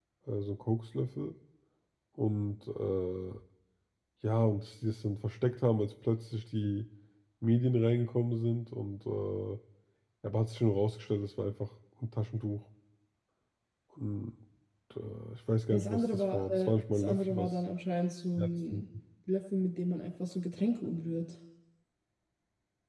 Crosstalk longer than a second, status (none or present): present